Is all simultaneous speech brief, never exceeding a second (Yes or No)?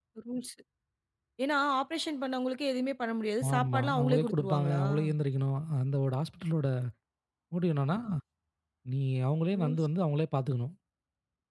No